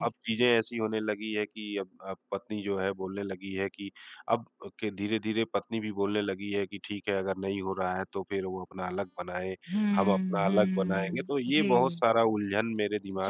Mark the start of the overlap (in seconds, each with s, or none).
9.9 s